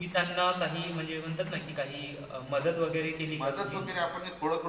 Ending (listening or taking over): taking over